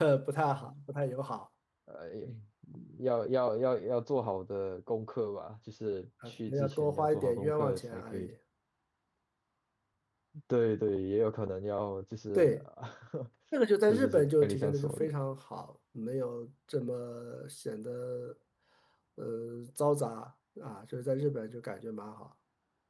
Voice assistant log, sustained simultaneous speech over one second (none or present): present